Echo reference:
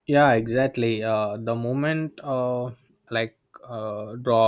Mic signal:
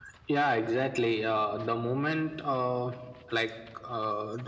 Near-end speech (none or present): none